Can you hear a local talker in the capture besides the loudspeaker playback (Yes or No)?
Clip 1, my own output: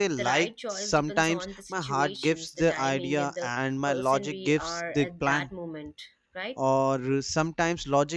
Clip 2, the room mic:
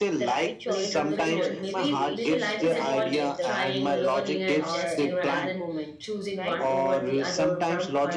Yes